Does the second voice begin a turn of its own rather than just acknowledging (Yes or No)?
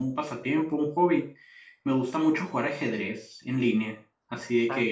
No